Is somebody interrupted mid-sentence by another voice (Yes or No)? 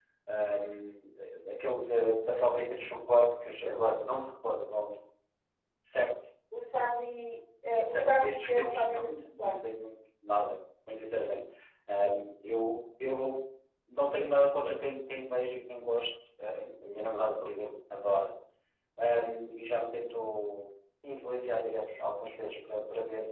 Yes